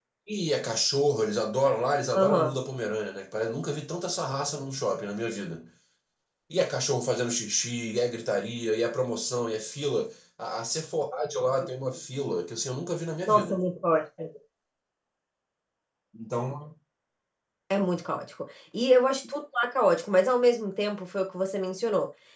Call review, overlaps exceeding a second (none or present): none